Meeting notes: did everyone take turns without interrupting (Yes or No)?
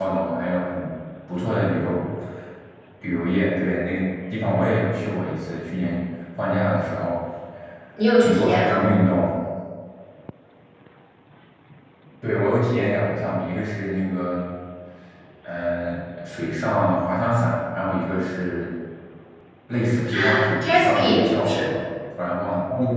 No